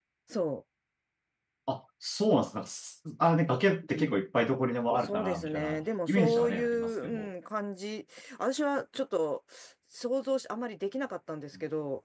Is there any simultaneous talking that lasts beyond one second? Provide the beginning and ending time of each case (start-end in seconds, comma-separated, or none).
5.0-7.3